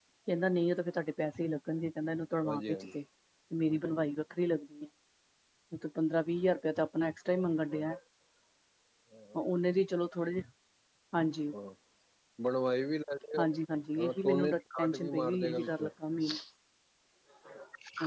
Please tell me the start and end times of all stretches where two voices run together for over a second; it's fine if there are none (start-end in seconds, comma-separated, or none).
14.0-15.9